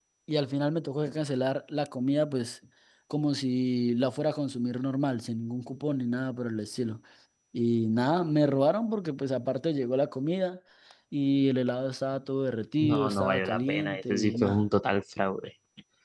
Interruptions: present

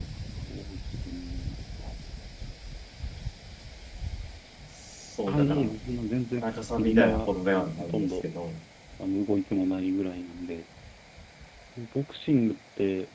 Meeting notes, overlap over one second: present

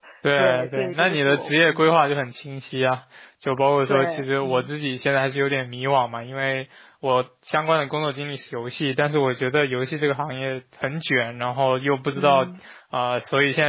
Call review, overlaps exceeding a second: present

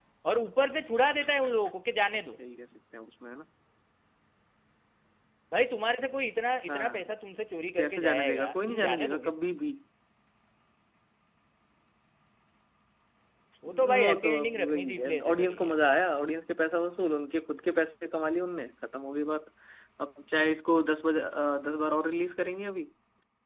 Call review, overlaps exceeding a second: present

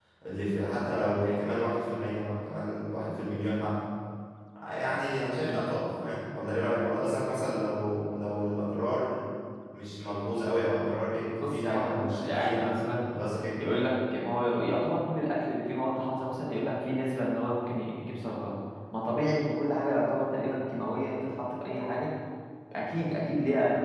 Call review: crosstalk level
present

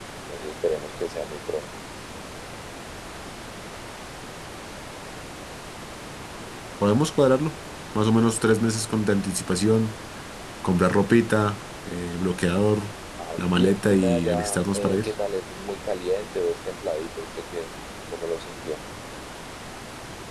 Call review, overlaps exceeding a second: present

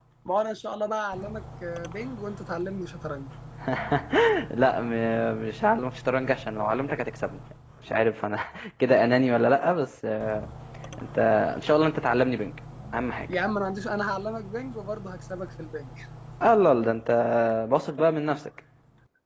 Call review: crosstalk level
none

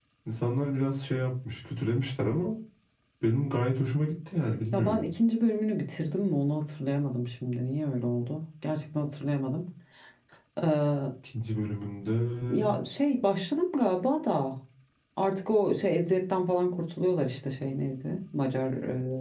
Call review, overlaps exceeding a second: none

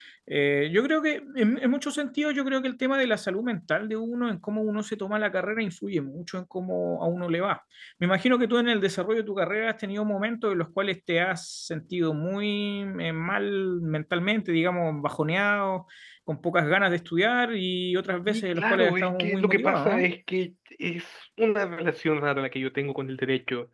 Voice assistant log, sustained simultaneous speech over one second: present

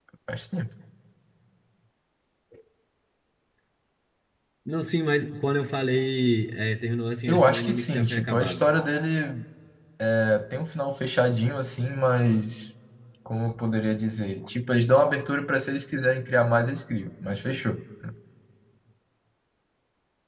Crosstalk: present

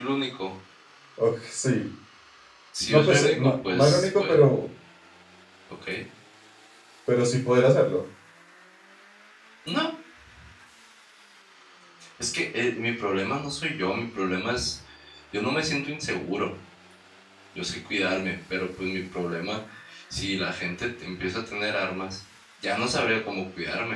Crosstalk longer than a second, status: present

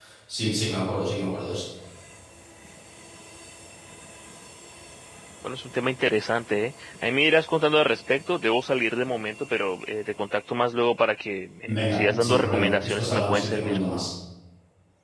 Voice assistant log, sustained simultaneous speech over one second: present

